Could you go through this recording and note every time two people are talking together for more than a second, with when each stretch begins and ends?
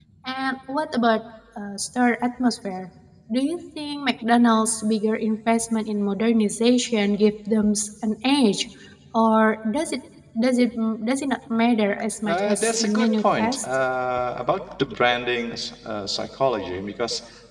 12.2-13.6

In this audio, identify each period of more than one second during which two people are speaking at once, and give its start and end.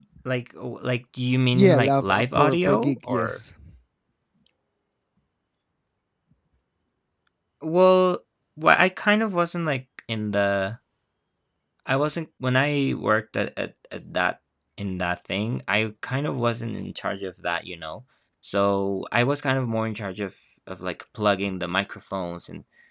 1.5-3.4

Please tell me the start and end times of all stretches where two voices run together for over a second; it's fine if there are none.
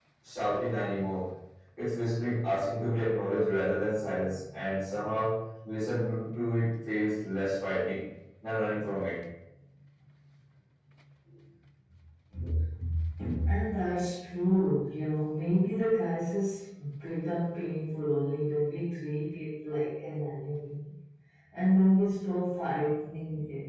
none

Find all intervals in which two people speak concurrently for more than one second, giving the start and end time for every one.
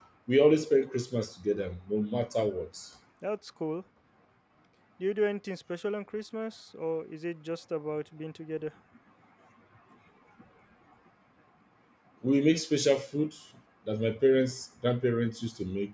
none

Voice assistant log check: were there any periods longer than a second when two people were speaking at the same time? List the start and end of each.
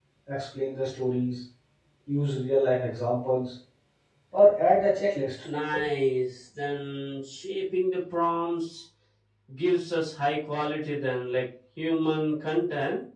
none

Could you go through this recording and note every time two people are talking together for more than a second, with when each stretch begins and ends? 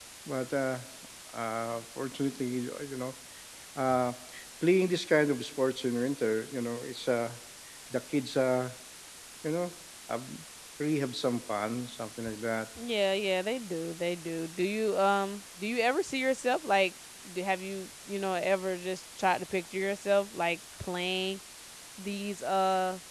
none

